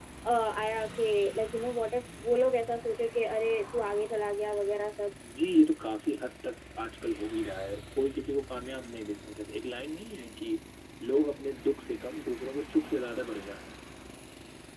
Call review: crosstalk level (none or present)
none